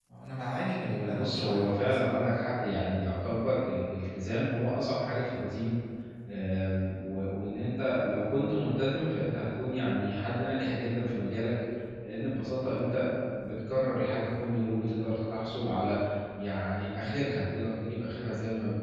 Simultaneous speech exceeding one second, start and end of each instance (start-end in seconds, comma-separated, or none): 0.8-2.0